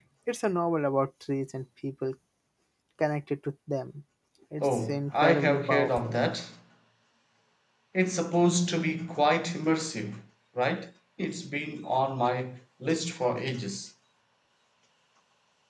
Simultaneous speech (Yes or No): Yes